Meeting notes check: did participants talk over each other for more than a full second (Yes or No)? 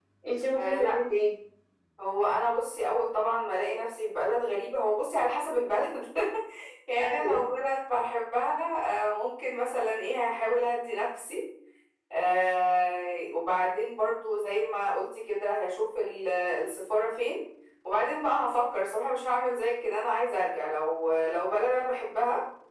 No